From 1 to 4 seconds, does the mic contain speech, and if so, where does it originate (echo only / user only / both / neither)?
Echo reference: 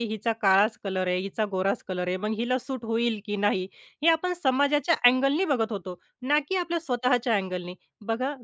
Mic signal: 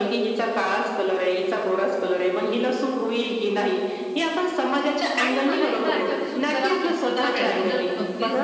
echo only